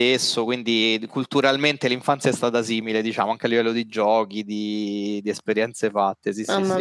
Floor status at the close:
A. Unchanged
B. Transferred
B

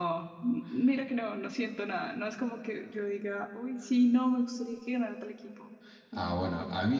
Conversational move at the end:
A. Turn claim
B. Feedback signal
A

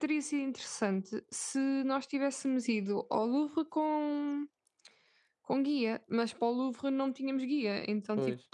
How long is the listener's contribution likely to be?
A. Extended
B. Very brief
B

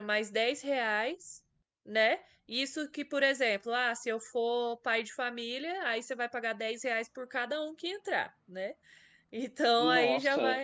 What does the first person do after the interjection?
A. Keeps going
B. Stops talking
A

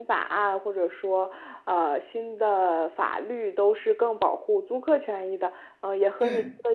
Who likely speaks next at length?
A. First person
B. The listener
A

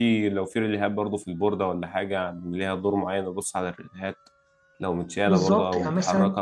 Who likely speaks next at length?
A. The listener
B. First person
A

